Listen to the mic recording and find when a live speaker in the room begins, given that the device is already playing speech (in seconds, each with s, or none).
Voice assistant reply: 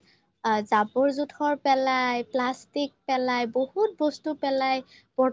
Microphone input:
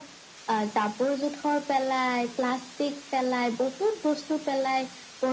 none